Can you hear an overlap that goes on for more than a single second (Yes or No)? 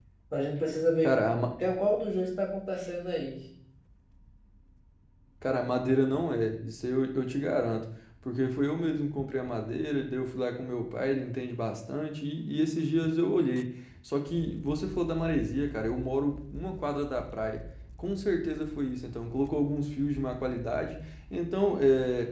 No